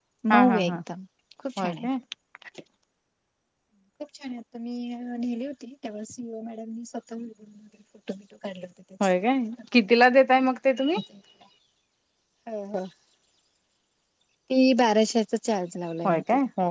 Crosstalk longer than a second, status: none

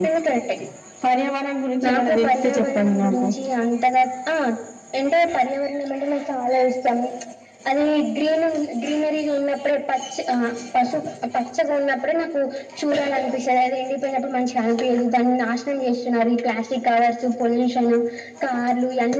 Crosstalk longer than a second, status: present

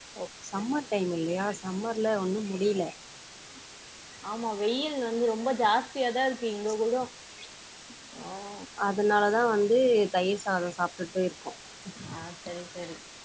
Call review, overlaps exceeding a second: none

